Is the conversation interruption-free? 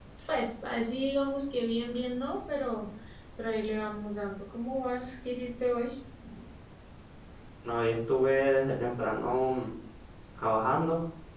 Yes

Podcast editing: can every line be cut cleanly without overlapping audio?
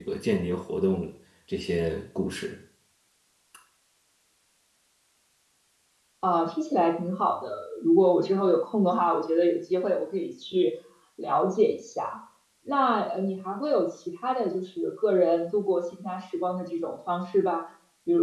Yes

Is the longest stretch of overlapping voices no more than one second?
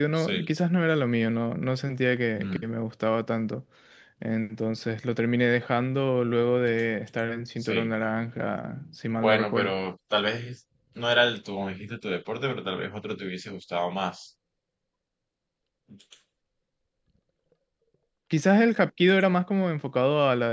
Yes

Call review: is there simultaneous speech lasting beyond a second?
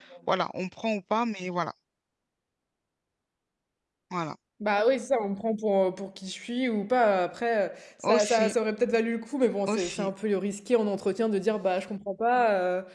No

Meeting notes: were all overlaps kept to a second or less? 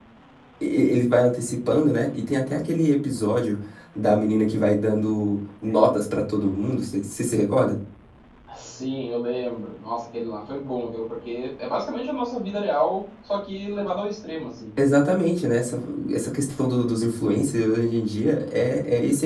Yes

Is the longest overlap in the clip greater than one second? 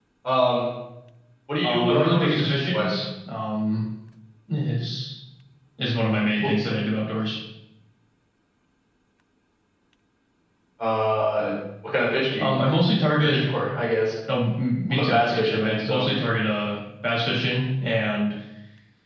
Yes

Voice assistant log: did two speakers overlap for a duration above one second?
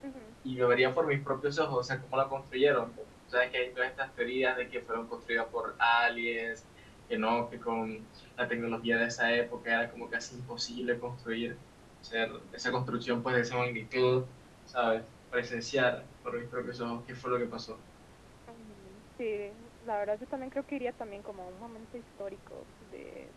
No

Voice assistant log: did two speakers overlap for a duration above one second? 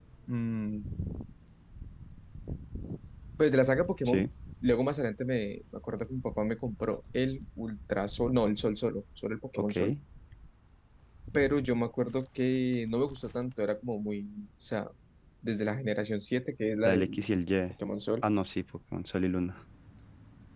No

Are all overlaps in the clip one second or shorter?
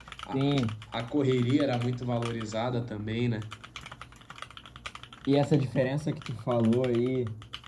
Yes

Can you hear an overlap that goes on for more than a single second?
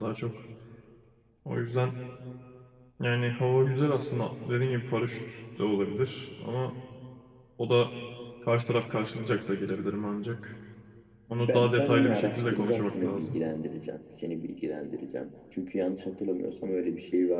Yes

